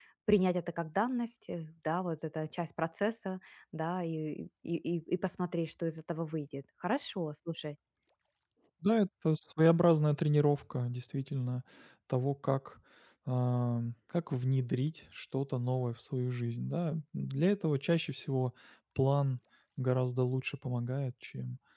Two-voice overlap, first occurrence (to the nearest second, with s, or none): none